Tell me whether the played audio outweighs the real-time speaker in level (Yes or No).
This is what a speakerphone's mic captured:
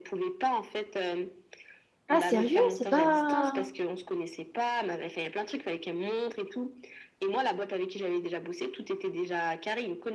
No